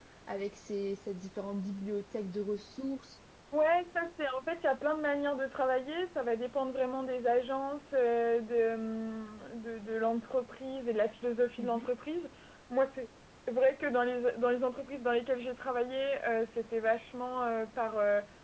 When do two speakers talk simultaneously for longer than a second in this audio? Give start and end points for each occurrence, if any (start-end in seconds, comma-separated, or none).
none